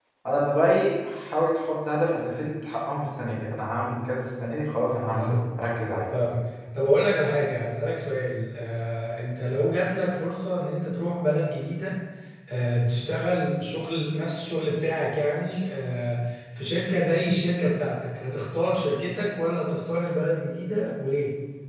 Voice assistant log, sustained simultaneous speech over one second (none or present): none